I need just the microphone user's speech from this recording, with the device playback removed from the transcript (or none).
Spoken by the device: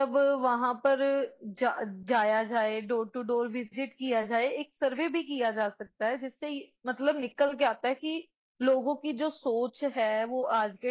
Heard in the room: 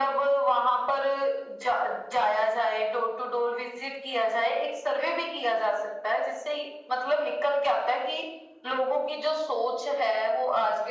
none